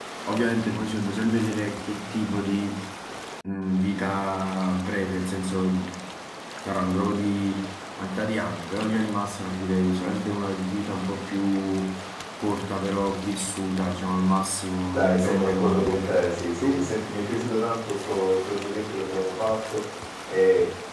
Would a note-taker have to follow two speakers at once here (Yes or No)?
Yes